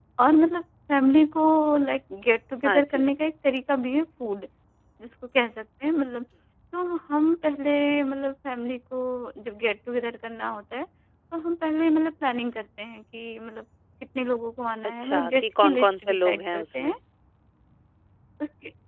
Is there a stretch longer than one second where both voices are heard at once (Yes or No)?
Yes